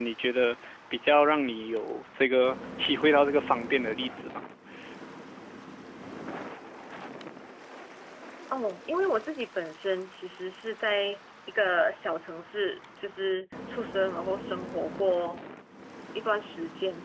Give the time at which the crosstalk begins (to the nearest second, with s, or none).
none